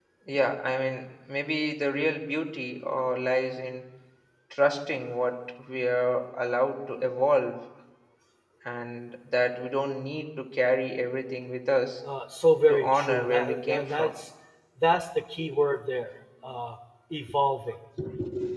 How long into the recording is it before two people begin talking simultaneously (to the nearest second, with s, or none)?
13 s